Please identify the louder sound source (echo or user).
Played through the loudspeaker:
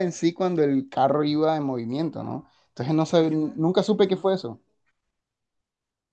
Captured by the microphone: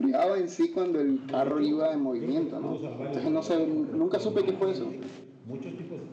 echo